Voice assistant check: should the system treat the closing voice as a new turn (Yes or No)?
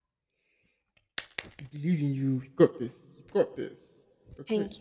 Yes